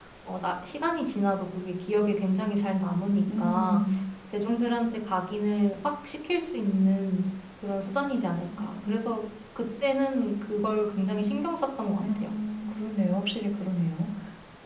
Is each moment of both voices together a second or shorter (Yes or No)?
Yes